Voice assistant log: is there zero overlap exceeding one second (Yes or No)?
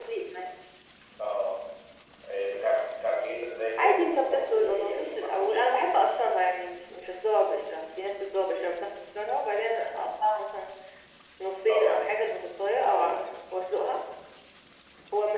No